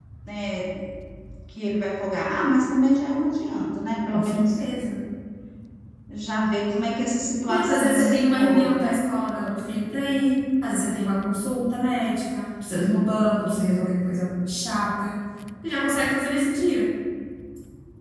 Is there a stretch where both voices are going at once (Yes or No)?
Yes